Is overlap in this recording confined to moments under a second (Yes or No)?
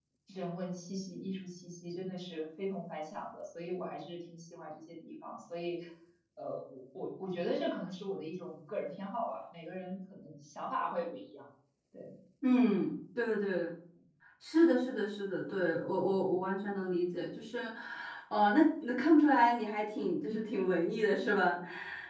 Yes